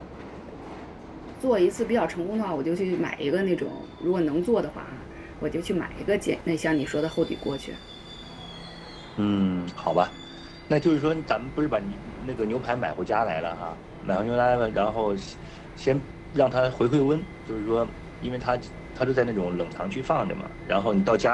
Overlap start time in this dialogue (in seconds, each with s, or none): none